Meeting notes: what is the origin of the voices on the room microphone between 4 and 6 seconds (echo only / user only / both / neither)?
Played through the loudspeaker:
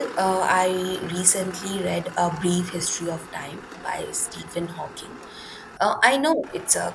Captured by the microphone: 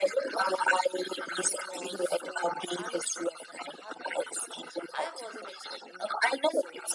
both